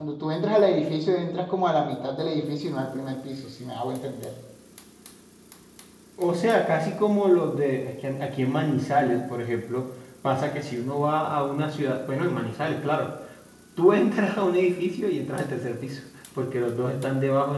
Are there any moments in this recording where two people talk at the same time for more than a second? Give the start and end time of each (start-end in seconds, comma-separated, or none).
none